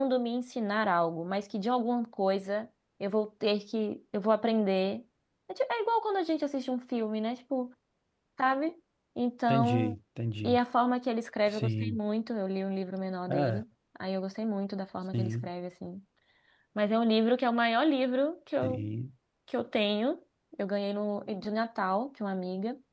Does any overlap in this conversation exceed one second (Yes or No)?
No